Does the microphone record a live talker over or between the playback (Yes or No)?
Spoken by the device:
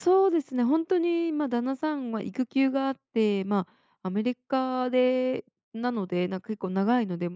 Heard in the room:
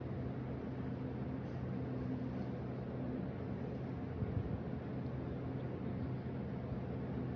No